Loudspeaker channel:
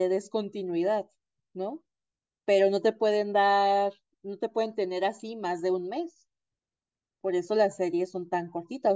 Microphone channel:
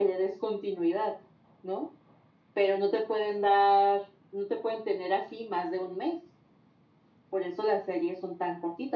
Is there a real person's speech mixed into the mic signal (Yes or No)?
No